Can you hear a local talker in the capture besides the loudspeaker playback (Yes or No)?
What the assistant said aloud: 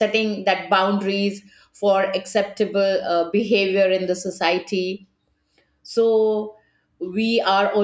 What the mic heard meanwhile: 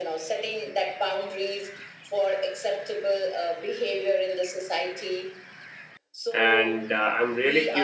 Yes